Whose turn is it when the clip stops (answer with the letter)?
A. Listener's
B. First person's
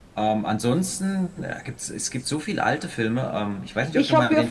A